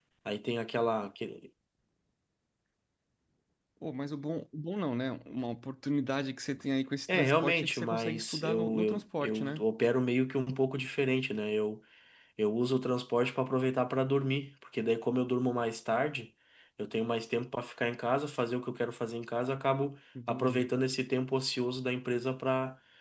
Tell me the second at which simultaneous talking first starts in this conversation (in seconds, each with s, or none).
7.1 s